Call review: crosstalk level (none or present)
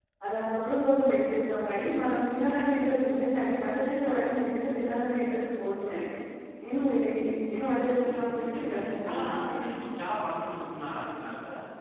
present